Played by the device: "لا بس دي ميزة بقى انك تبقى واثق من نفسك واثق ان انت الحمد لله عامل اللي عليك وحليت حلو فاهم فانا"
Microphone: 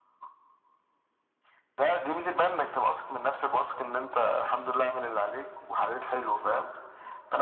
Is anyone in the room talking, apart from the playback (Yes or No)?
No